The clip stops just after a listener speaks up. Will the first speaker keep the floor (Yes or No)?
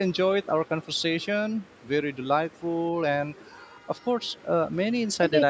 No